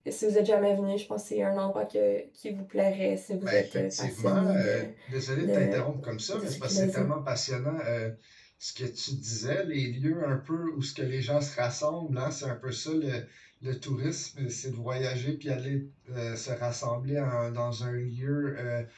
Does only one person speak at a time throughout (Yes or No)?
No